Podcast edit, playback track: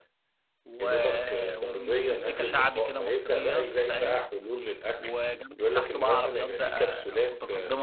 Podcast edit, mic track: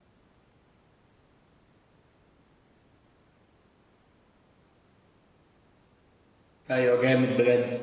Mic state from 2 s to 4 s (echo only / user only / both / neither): neither